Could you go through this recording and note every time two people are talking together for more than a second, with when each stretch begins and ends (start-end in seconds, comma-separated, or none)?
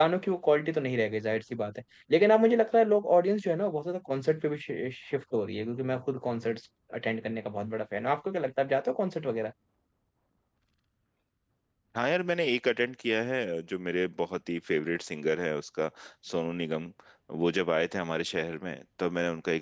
none